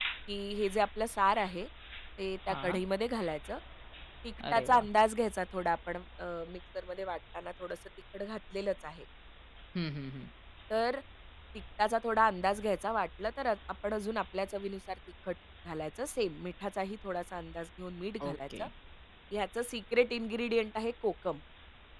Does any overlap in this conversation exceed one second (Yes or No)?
No